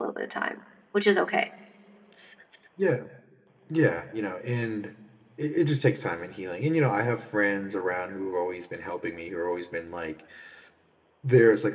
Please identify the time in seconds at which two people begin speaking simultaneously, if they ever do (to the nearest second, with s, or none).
none